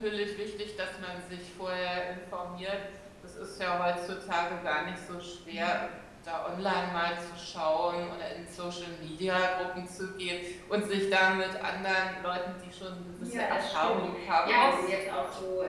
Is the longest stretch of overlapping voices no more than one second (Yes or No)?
No